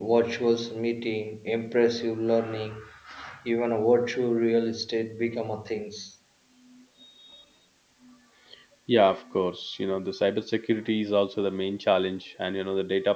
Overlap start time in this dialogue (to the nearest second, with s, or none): none